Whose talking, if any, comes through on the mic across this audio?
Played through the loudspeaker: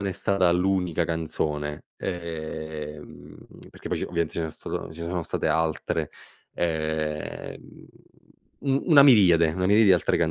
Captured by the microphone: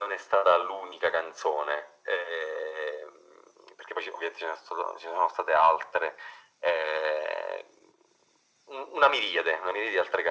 echo only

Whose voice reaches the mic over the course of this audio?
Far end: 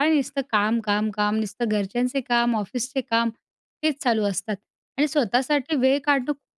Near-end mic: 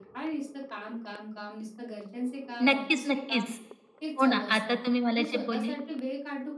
both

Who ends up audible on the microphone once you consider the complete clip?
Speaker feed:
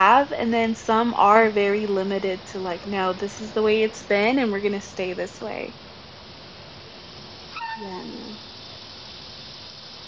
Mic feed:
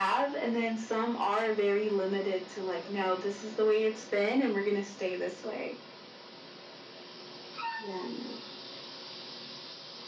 echo only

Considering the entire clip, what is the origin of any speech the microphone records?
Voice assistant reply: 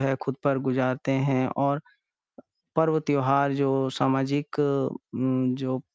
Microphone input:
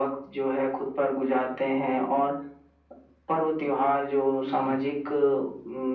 both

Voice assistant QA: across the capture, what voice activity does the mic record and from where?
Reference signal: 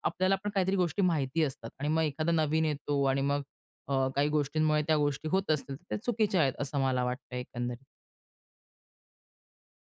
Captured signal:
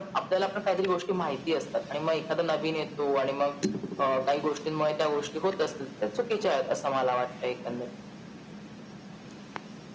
echo only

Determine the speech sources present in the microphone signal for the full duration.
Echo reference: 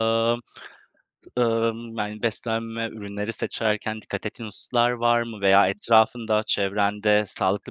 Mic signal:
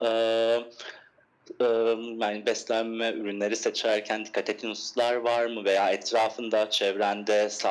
echo only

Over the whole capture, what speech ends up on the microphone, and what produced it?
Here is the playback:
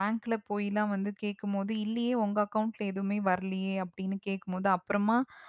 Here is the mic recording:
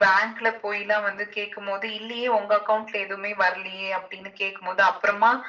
echo only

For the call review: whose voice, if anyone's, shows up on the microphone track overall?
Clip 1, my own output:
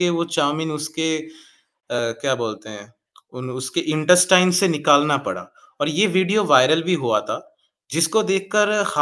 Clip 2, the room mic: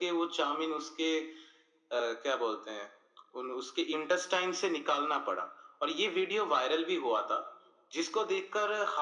echo only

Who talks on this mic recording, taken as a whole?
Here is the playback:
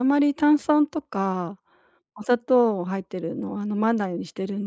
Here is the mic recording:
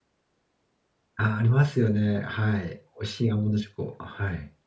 user only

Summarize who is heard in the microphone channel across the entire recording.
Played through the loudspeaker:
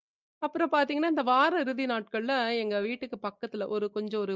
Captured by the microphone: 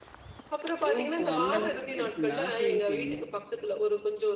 both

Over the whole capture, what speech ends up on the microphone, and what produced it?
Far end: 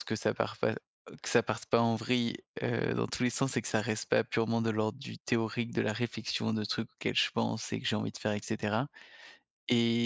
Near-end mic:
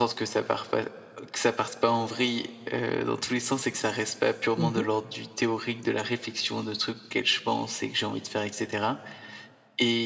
both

